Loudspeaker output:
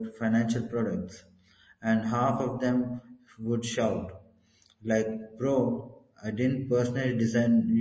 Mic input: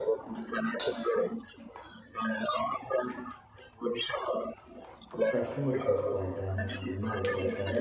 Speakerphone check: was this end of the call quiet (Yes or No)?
No